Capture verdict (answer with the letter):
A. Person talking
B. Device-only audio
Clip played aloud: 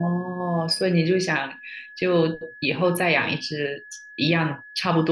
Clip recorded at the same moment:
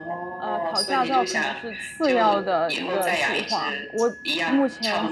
A